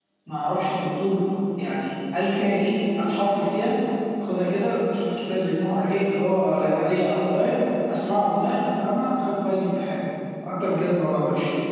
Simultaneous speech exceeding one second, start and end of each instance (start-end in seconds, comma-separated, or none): none